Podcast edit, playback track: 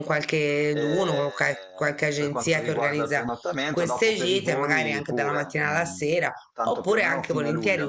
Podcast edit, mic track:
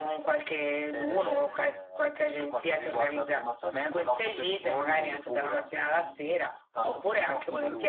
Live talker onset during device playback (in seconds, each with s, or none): none